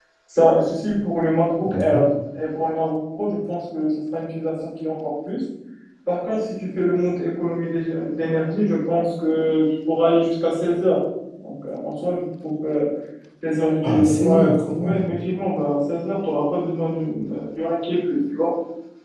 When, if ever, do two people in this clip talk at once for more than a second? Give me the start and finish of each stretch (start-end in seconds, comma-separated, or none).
13.8-15.0